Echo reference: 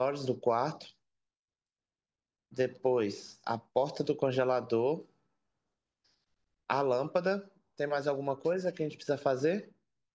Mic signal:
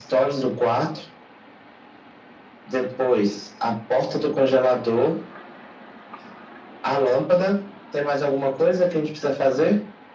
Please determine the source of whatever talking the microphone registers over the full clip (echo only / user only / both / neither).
echo only